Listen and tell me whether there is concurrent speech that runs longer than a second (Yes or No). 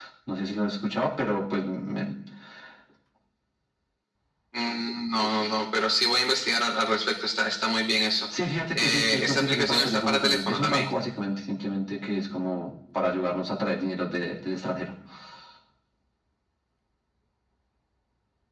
Yes